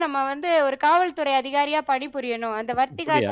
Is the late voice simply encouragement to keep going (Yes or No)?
No